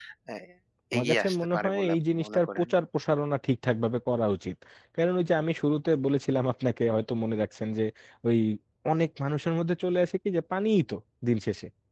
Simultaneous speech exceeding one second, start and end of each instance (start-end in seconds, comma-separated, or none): 1.0-2.7